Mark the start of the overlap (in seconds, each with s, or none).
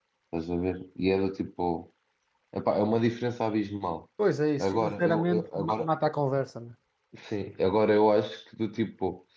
4.6 s